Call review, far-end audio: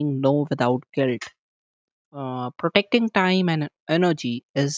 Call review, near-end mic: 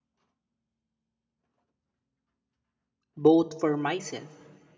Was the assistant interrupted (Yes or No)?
Yes